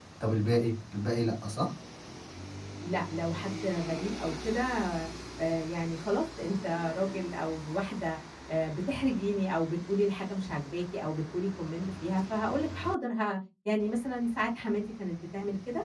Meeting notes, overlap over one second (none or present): none